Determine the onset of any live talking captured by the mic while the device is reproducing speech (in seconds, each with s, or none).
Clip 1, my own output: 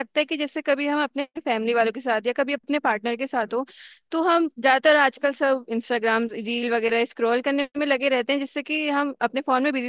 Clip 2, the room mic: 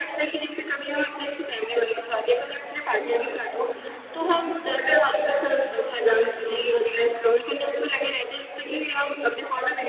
none